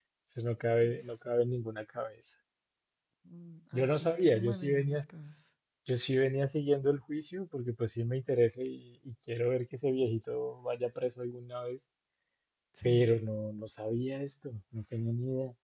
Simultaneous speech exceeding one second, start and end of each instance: 3.7-5.1

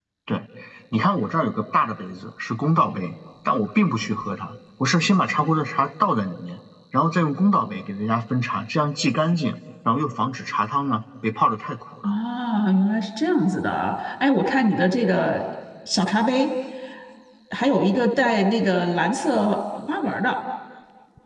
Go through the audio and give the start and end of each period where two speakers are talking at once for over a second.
none

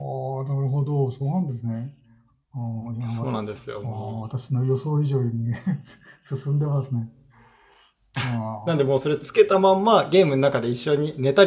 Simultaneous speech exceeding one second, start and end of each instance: none

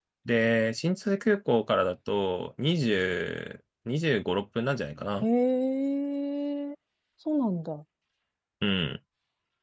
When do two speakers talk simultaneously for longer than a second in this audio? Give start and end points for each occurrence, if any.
none

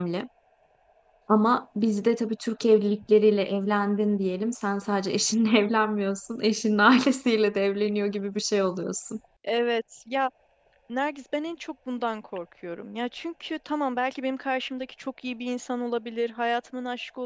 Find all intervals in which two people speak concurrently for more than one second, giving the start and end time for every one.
none

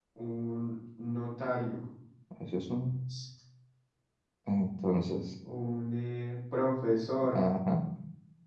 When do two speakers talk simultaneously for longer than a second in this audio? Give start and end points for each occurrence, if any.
none

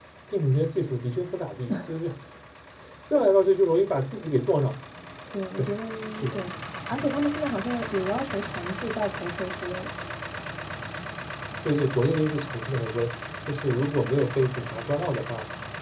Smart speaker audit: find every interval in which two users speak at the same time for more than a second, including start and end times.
none

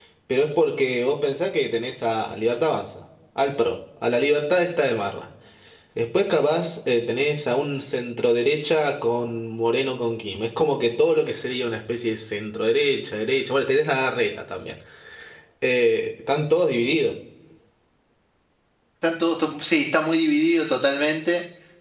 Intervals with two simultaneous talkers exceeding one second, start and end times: none

